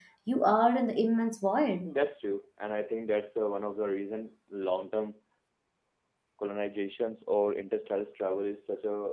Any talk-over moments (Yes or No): No